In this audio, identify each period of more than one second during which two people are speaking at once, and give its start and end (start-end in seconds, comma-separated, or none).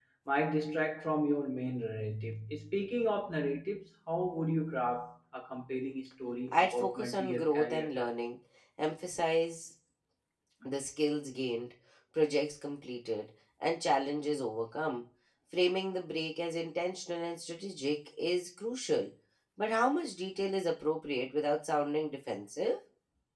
6.5-8.1